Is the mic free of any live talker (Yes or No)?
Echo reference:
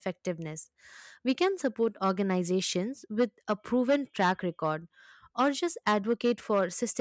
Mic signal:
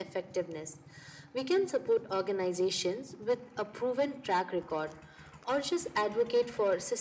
Yes